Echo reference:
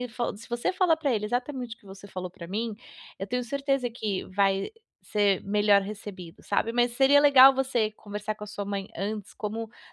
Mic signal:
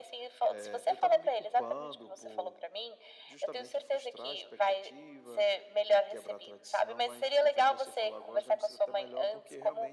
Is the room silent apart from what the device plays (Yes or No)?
No